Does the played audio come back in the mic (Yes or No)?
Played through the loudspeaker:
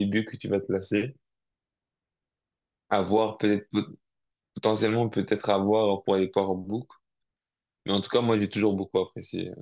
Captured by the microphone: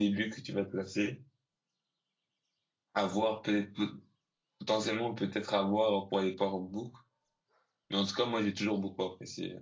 Yes